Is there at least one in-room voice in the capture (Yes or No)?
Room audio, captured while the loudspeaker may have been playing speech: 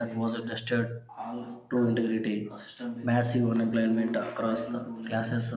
Yes